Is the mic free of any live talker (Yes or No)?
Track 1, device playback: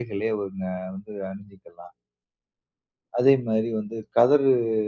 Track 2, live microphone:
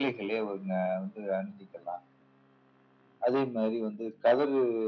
Yes